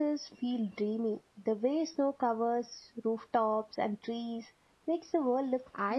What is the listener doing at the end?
taking over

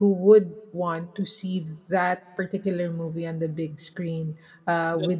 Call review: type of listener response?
listening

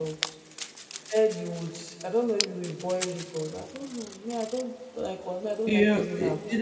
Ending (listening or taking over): taking over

